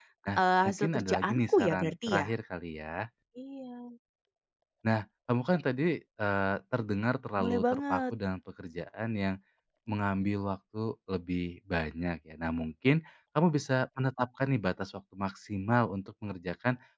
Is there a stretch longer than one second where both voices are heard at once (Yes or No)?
Yes